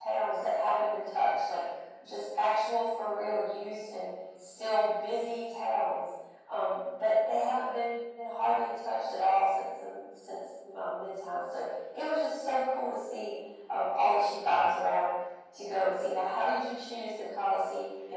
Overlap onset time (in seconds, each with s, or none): none